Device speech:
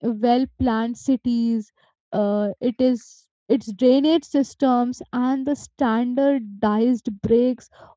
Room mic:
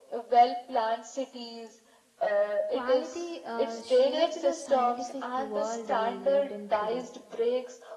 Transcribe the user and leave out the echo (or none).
quality uh, shaped the scientific world we lived in today.